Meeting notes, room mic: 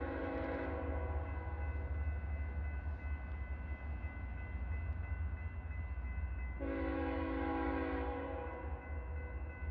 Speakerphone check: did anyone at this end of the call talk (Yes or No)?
No